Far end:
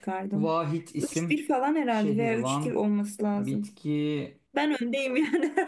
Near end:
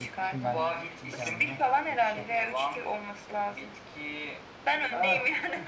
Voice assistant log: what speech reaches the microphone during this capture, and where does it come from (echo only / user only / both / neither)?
both